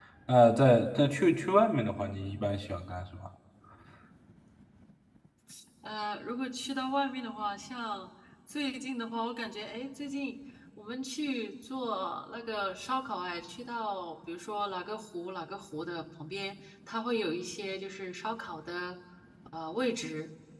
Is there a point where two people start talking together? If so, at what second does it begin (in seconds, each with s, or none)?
none